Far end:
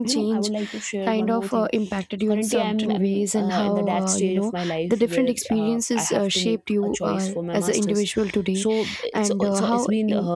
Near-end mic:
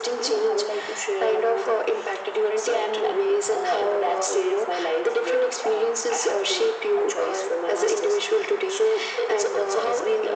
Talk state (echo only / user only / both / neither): echo only